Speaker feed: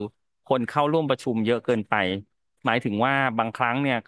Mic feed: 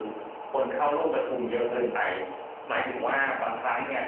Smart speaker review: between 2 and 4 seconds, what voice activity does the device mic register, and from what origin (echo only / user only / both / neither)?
echo only